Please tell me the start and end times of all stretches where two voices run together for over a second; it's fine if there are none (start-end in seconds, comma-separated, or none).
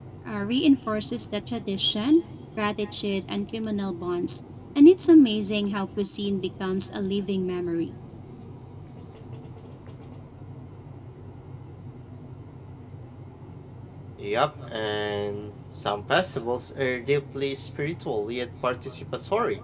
none